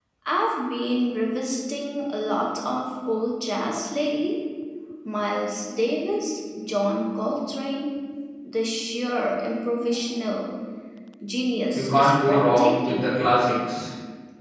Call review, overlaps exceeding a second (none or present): present